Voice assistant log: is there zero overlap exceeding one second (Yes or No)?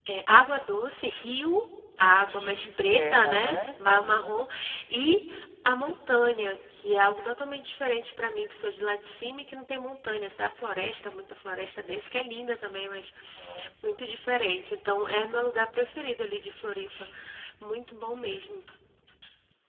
No